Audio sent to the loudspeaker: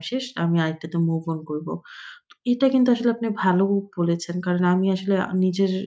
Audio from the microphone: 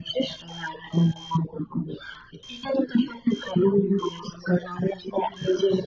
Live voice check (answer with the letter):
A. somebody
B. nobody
B